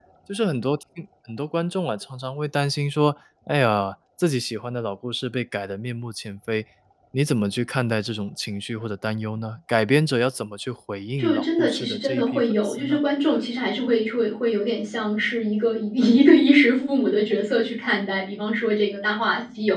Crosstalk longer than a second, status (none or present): present